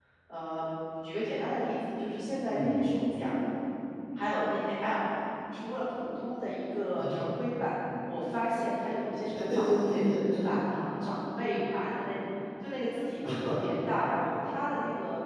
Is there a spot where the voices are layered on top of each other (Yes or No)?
Yes